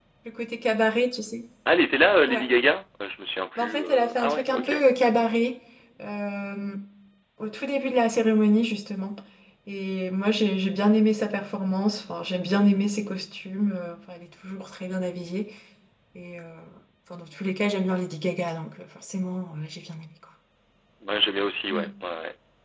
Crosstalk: present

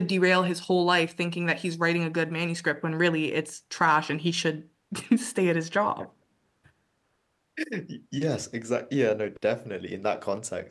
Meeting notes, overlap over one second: none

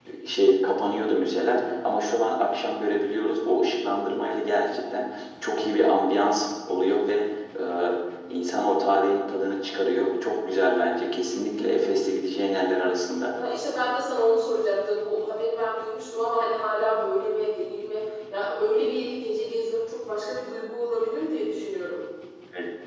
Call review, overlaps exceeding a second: none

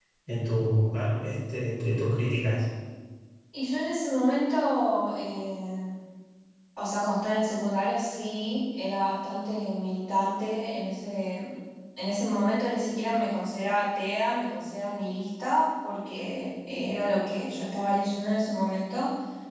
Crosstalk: none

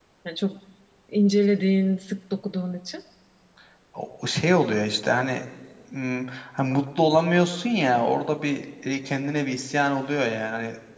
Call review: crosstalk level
none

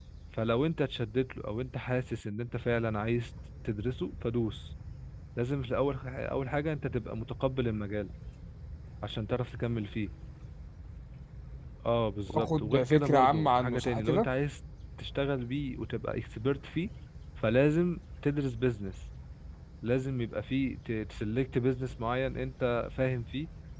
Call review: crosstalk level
present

